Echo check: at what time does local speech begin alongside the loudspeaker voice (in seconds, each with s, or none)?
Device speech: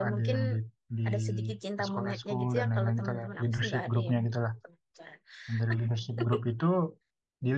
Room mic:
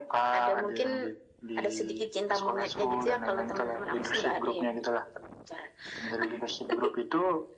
none